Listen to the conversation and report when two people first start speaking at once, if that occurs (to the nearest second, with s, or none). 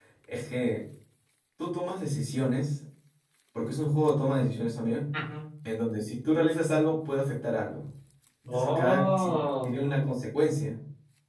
8 s